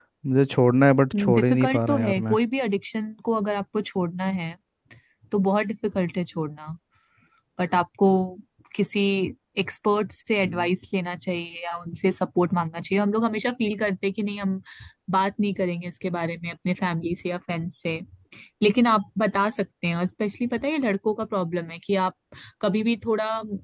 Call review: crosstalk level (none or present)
present